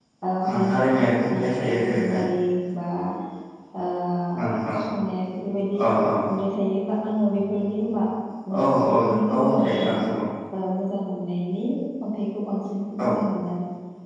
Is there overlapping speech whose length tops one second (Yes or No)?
Yes